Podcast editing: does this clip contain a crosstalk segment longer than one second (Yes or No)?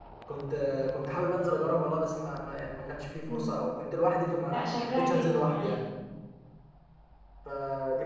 Yes